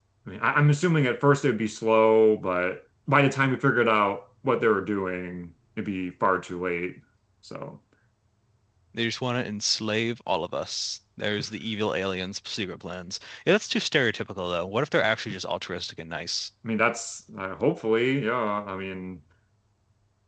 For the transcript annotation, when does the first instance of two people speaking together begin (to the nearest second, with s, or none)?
none